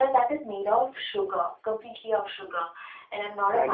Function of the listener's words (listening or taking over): taking over